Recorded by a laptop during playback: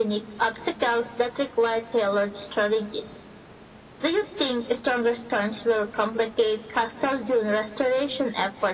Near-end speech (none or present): none